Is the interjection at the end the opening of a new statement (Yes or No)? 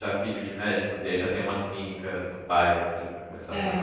Yes